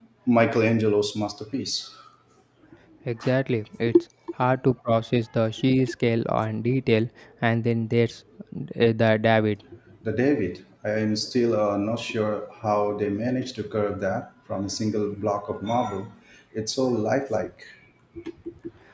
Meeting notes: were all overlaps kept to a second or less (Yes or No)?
Yes